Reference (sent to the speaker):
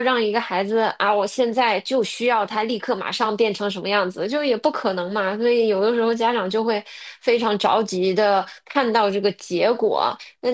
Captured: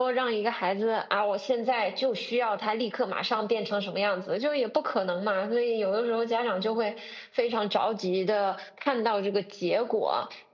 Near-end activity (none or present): none